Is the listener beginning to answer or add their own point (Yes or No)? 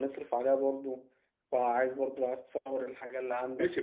Yes